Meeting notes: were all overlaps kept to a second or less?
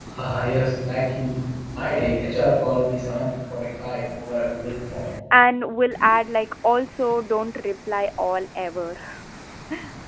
Yes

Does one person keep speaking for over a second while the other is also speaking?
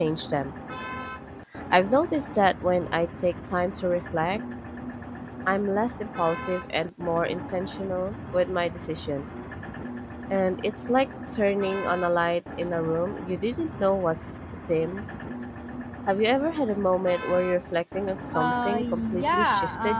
Yes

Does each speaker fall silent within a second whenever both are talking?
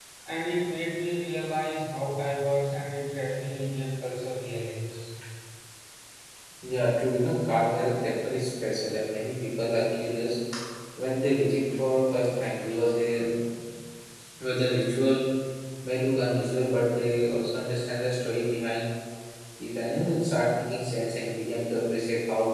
Yes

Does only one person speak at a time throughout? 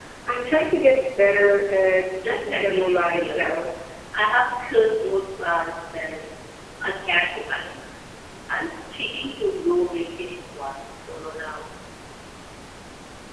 No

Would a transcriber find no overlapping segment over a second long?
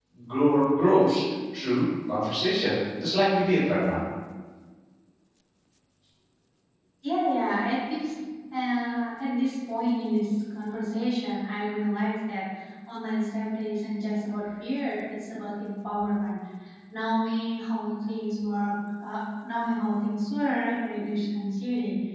Yes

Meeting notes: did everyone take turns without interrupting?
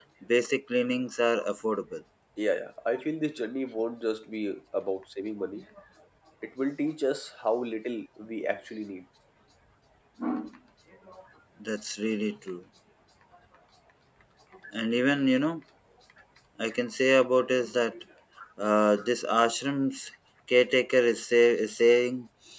Yes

